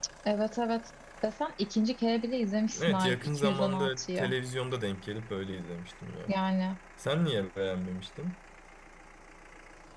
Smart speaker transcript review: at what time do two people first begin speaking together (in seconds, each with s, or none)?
2.7 s